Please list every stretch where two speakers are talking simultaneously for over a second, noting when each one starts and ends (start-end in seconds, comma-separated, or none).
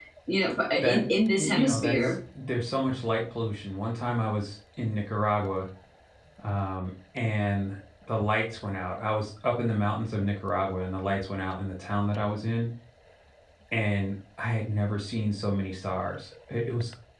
0.8-2.1